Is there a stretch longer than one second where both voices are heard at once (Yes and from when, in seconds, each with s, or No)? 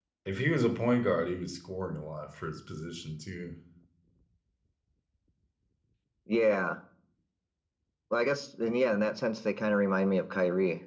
No